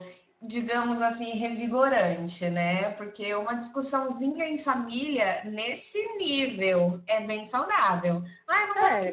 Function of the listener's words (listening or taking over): listening